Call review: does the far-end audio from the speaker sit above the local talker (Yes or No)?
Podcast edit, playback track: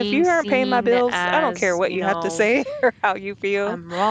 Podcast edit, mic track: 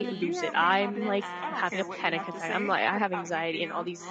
No